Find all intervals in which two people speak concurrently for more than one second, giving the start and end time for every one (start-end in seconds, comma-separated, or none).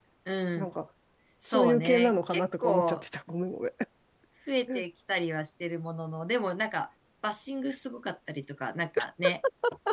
1.4-3.0